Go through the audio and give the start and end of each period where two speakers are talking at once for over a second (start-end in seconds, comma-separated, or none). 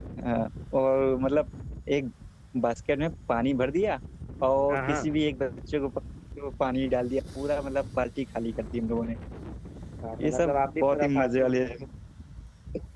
10.2-11.6